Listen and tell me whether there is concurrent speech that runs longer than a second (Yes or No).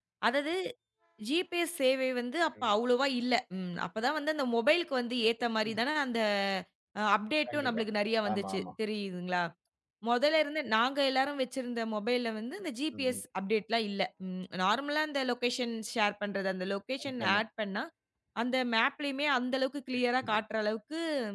No